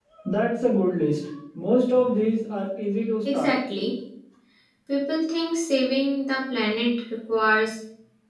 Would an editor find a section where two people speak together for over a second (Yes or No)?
No